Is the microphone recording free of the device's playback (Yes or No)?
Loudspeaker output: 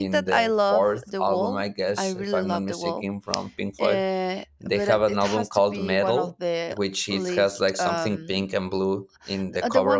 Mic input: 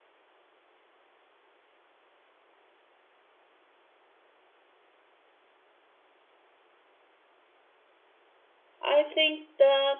Yes